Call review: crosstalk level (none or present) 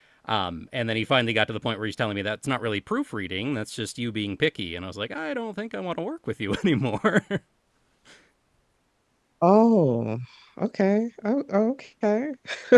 none